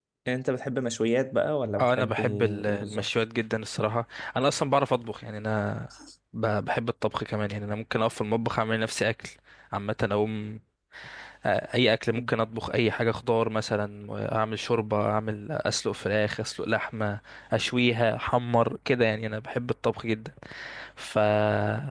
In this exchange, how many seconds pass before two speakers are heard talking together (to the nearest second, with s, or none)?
2 s